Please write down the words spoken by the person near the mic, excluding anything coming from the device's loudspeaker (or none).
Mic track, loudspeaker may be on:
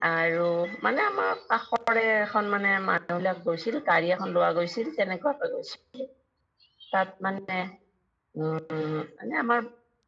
none